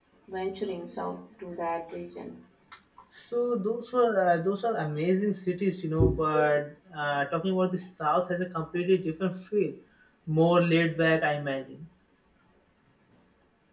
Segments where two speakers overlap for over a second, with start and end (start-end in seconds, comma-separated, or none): none